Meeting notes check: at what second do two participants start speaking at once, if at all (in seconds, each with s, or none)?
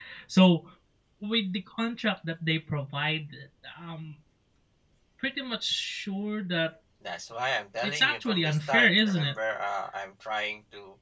7.8 s